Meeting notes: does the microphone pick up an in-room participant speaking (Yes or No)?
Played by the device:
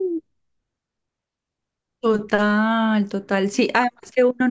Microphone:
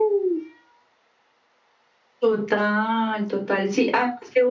No